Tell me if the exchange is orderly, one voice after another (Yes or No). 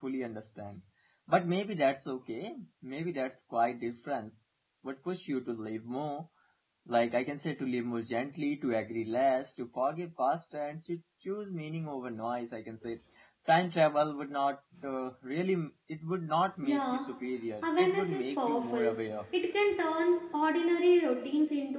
No